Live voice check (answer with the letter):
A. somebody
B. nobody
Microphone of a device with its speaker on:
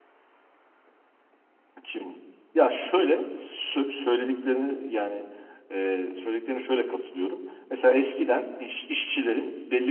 A